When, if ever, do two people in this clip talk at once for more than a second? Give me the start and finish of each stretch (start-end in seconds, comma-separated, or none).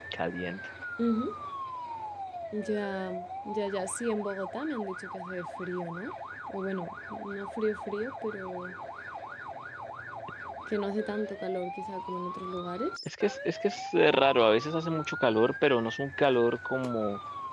none